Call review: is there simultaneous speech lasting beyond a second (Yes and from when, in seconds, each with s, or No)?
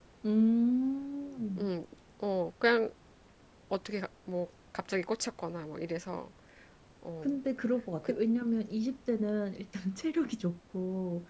No